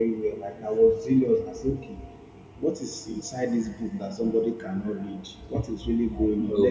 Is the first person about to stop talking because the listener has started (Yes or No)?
No